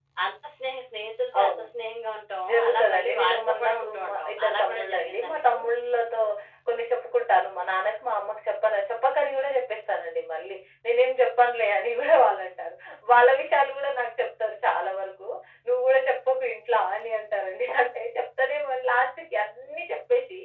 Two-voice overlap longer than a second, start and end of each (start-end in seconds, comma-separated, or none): 2.5-5.6